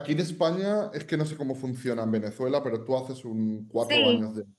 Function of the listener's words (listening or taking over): taking over